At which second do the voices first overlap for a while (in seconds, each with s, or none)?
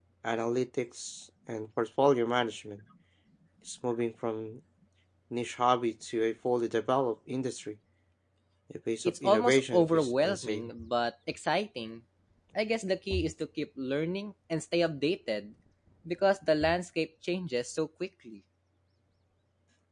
9.1 s